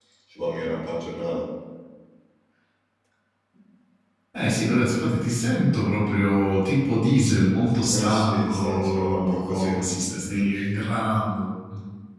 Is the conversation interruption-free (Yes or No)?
No